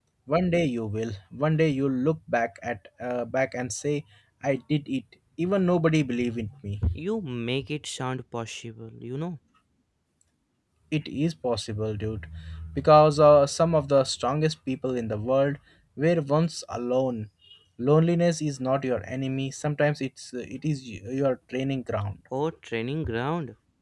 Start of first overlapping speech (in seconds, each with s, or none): none